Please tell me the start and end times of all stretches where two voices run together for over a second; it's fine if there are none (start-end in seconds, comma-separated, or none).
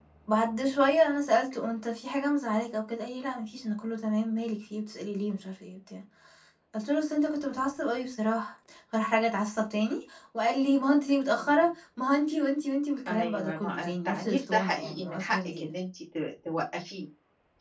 13.1-15.7